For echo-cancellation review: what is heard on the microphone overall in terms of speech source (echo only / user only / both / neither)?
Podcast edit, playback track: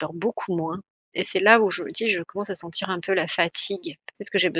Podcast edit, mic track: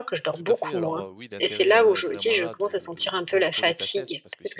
both